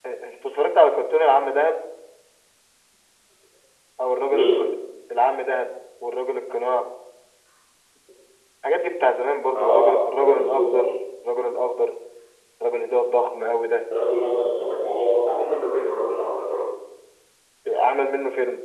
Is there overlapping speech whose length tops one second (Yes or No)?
Yes